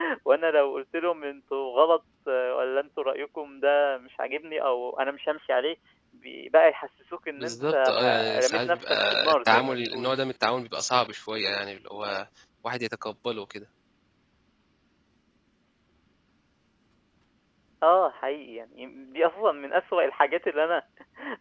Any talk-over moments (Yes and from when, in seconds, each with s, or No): Yes, from 7.4 s